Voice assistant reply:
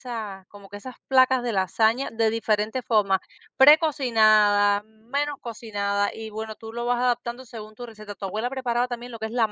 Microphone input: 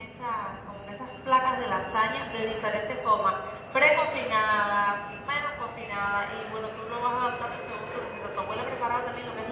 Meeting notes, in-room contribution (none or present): none